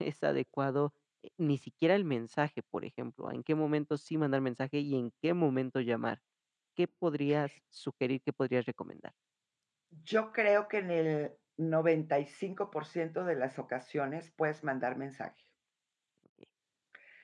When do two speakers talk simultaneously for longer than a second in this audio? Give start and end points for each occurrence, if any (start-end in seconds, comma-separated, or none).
none